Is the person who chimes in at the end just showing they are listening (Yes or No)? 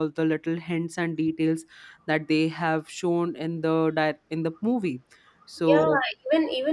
No